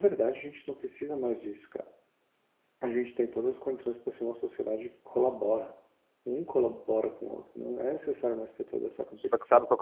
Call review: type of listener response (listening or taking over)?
taking over